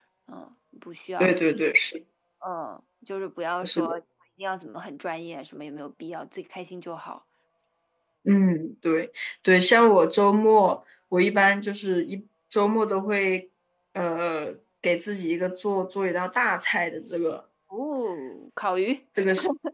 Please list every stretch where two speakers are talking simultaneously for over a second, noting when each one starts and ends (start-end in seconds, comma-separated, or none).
none